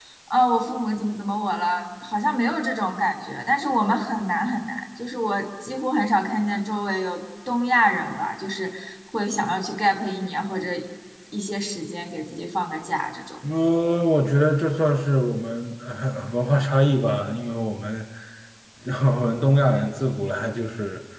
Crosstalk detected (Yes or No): No